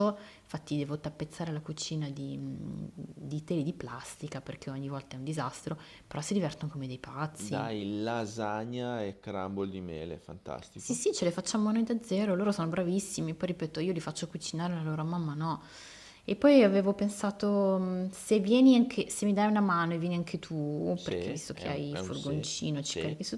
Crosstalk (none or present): present